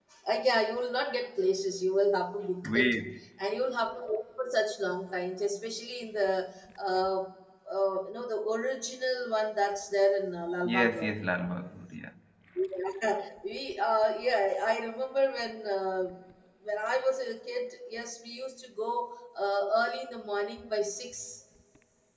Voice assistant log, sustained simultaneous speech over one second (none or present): none